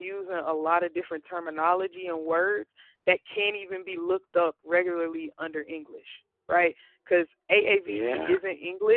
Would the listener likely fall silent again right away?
Yes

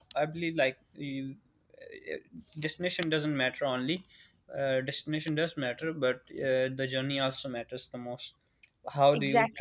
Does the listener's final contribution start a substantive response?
No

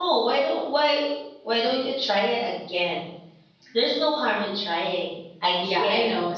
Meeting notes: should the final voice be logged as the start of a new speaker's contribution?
Yes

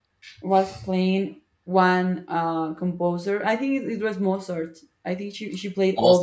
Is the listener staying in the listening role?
Yes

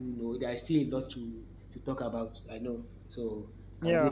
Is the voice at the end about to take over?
Yes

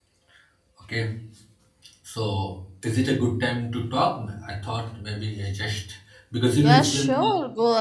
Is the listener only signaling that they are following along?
No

